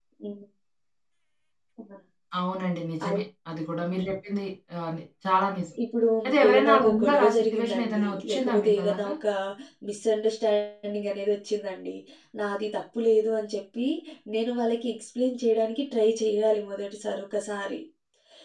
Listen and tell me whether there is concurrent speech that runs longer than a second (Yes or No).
Yes